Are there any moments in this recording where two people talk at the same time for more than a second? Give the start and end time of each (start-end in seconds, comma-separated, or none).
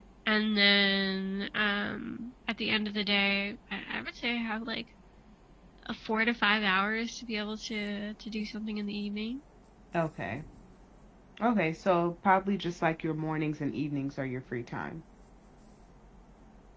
none